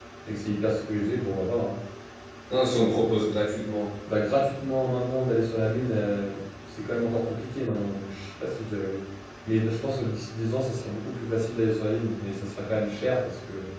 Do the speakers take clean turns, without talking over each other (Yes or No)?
Yes